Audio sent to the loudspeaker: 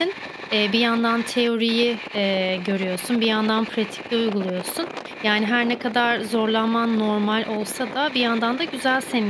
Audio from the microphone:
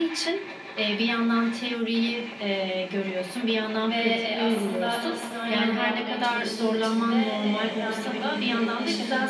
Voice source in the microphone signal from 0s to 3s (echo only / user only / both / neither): echo only